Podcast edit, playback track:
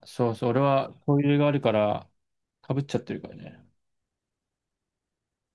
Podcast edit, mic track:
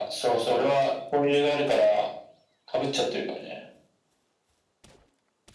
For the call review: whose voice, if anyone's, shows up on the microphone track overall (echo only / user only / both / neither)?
echo only